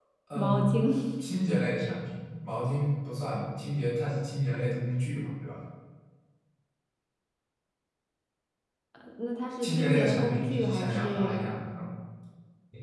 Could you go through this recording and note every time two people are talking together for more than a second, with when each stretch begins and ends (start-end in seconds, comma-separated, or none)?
9.6-11.4